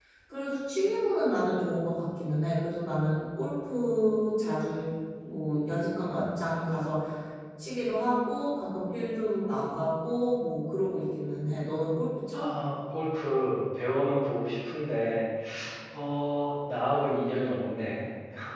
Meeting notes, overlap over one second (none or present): none